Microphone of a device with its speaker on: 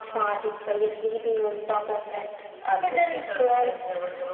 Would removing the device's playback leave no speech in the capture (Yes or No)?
Yes